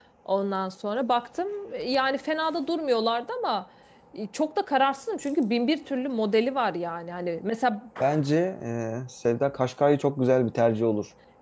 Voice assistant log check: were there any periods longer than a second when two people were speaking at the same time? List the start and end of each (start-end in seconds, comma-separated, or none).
none